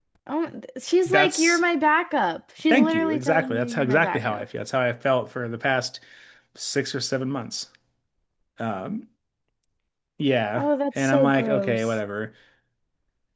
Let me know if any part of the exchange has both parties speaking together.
Yes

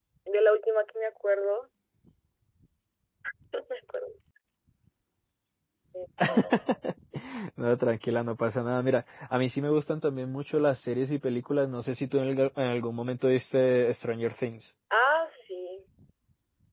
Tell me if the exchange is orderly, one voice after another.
Yes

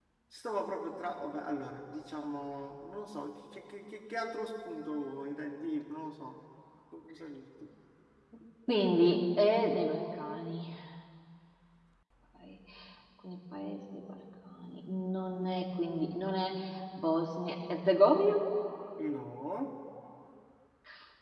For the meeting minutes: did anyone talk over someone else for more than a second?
No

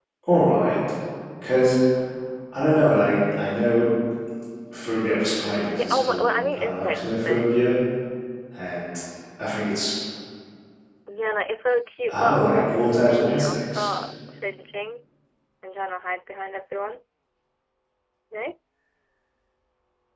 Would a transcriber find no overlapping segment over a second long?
No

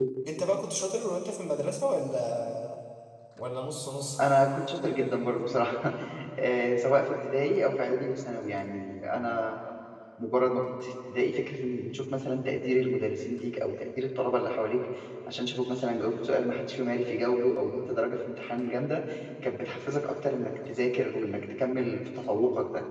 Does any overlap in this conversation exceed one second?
No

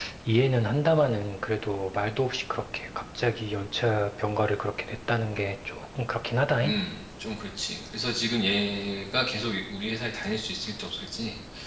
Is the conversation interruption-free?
Yes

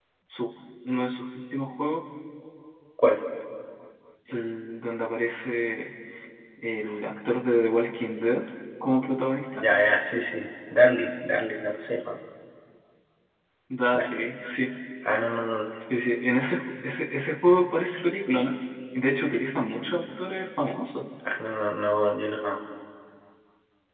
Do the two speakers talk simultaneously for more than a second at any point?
No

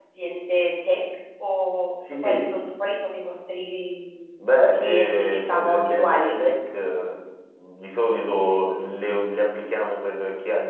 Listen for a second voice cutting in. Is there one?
Yes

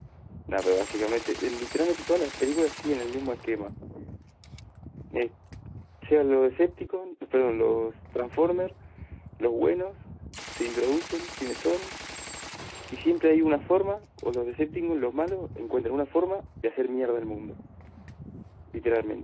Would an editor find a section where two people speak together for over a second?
No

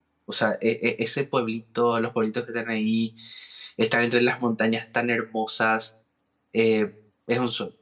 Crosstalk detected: No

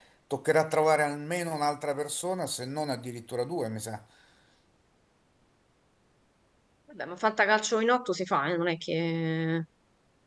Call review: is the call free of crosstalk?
Yes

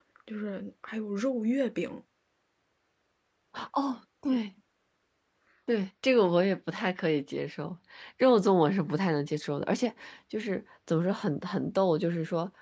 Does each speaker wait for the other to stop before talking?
Yes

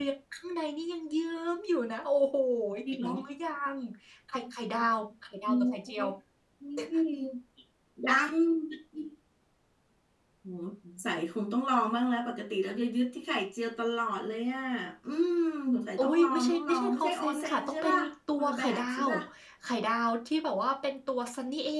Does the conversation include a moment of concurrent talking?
Yes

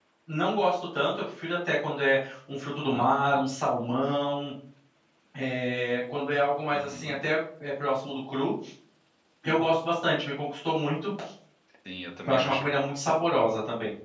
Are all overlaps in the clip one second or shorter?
Yes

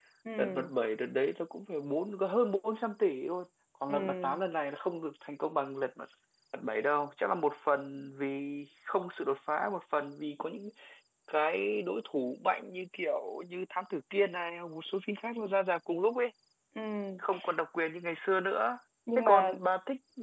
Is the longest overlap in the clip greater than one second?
No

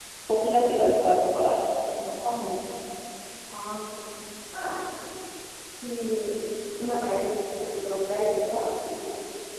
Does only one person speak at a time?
Yes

